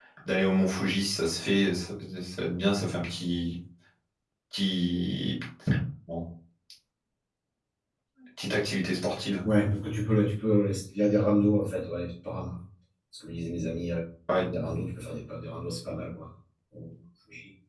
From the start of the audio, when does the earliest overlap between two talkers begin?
none

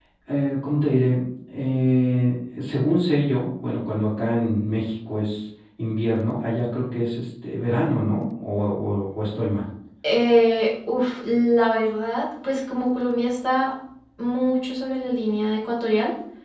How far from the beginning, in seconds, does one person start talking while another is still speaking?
none

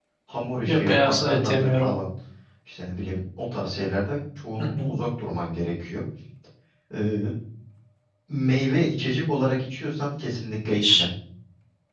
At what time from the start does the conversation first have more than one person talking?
1 s

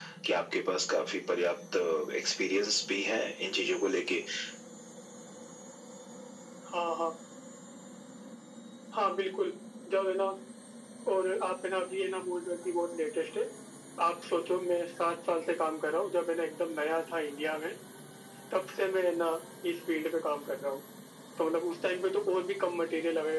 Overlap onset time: none

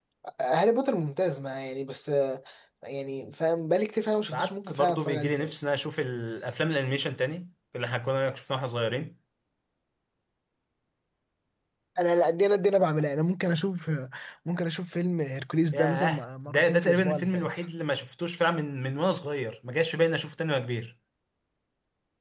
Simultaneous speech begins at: 4 s

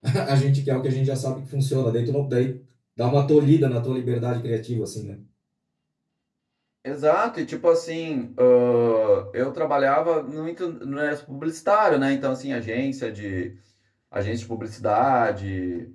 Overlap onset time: none

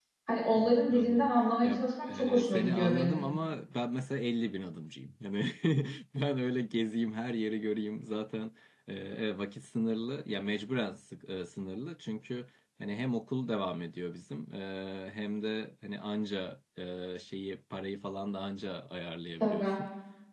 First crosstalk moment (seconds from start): 1 s

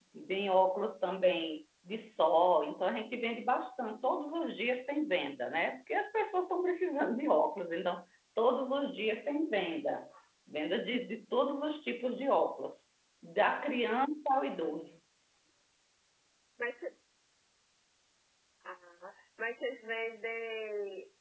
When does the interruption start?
none

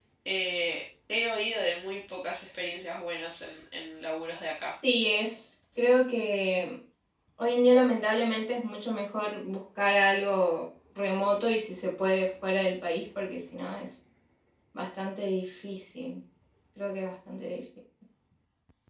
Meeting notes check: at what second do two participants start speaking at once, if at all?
none

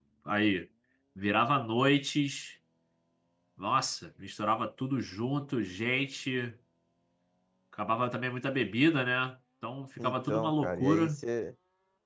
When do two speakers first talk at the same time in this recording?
10 s

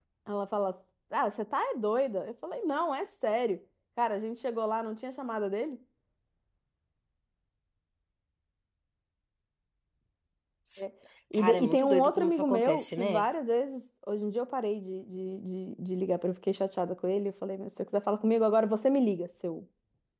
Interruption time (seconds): 11 s

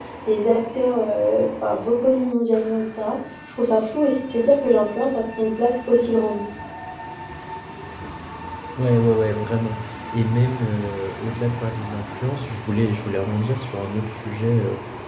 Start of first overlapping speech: none

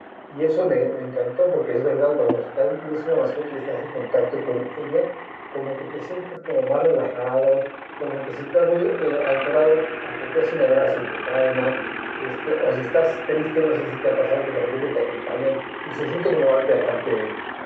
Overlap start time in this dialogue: none

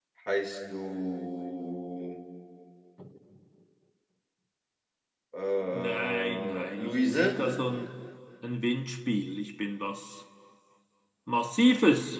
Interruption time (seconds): 6 s

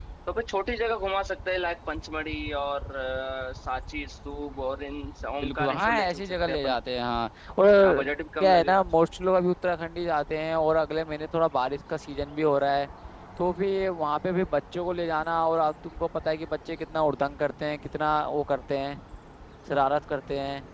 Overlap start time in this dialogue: 5 s

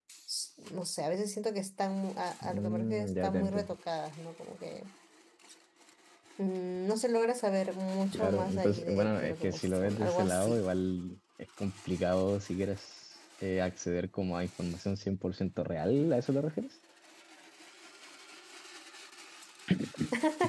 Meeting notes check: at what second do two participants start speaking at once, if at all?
2 s

